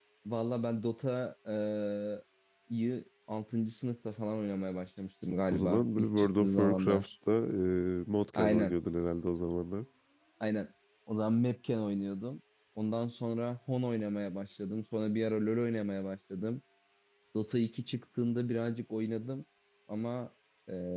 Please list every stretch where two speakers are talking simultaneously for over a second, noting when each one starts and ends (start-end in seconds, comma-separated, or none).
5.5-7.1